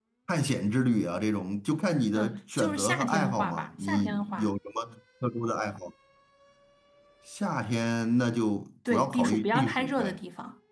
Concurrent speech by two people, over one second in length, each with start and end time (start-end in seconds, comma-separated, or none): 2.1-4.5, 8.9-10.2